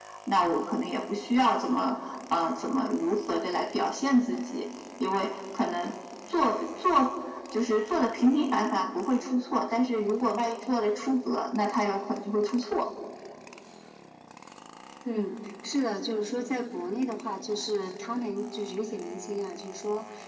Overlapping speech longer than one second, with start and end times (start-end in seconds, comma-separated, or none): none